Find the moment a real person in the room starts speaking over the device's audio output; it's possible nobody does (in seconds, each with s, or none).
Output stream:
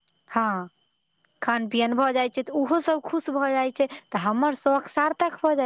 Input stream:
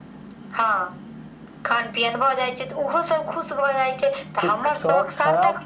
4.4 s